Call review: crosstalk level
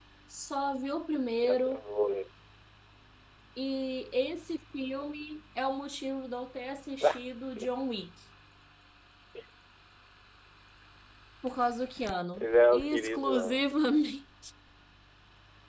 present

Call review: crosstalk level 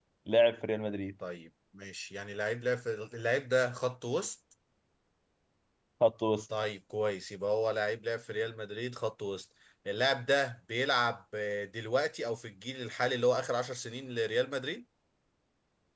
none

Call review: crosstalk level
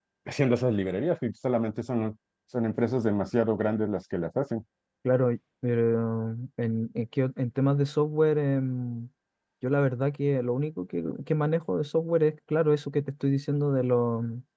none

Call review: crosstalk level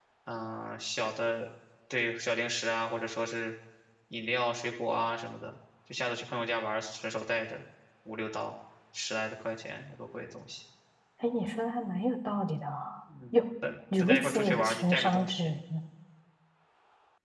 present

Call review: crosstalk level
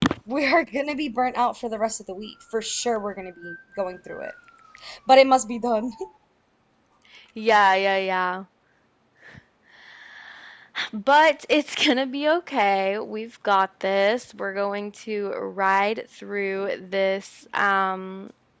none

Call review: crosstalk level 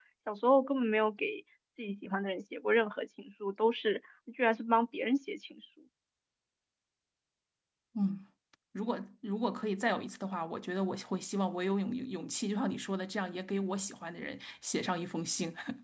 none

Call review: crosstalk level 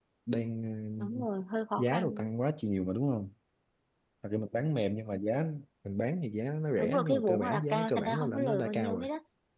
present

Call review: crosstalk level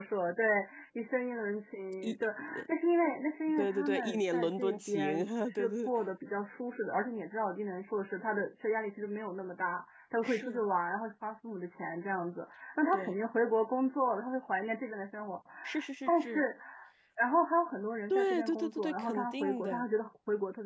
present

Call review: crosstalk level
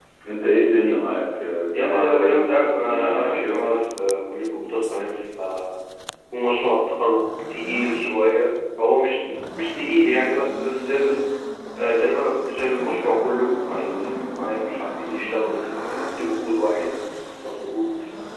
present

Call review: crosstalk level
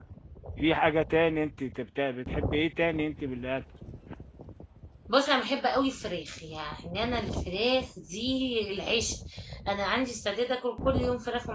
none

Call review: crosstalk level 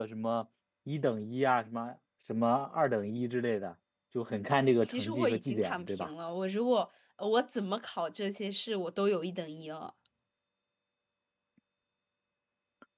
present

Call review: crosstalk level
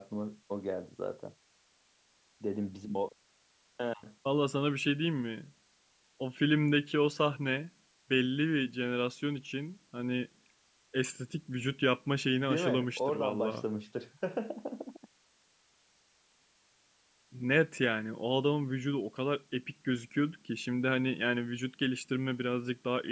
present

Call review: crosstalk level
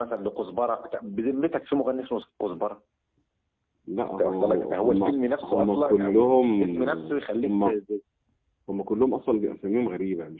present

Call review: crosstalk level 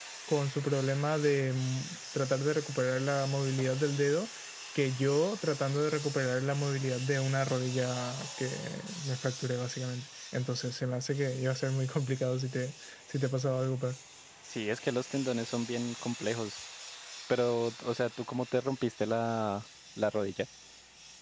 none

